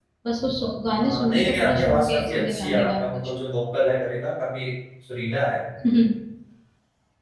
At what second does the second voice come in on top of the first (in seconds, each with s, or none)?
1.0 s